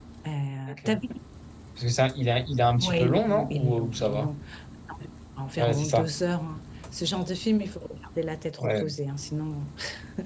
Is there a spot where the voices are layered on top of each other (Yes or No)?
Yes